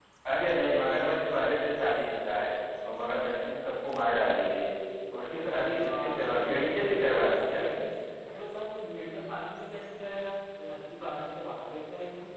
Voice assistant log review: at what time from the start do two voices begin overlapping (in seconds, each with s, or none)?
5.8 s